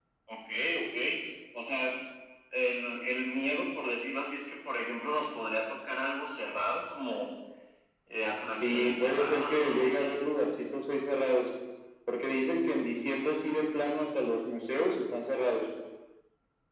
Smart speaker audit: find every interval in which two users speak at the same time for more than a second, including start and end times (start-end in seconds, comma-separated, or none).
8.5-10.1